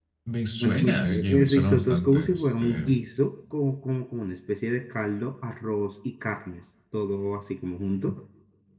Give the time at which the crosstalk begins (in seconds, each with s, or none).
0.6 s